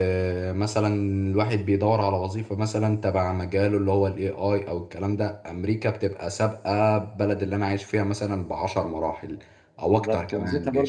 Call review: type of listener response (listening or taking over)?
taking over